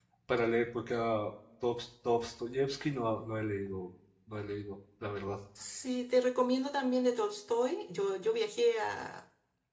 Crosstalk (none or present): none